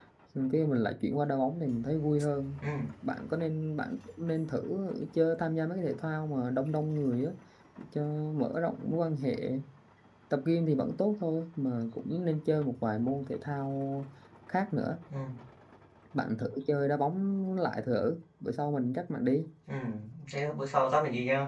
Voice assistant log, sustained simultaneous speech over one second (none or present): none